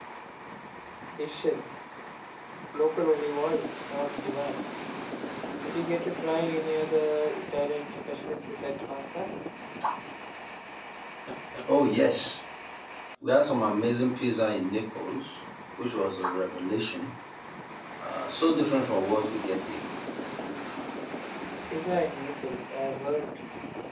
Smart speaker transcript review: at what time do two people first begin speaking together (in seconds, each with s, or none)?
none